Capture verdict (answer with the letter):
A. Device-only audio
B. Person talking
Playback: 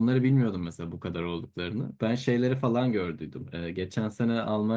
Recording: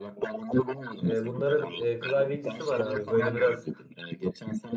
B